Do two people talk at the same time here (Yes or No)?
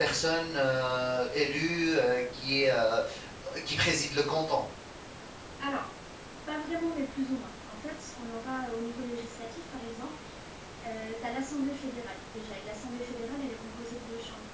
No